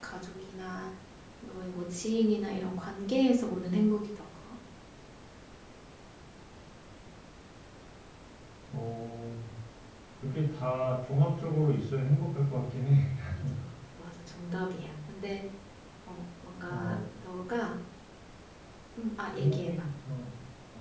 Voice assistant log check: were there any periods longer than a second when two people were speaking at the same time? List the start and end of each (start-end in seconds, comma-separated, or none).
none